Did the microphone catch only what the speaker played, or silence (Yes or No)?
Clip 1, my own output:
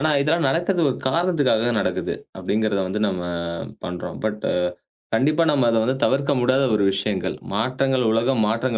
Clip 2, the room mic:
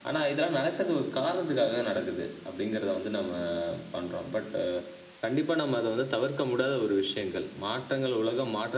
Yes